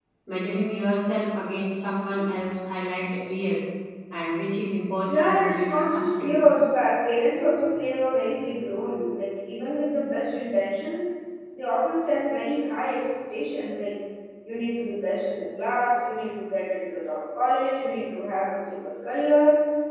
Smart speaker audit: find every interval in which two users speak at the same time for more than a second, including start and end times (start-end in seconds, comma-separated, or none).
5.1-6.4